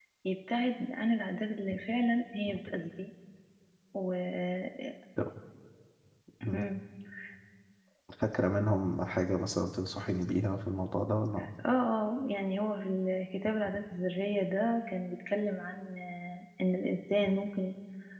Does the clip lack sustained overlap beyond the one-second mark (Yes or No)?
Yes